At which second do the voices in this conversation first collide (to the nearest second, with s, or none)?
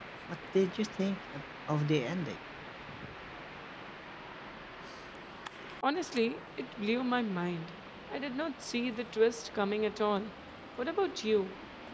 none